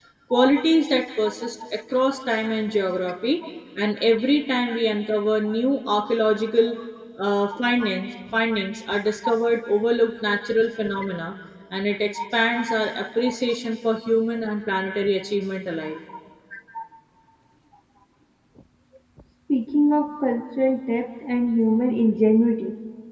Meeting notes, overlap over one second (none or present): none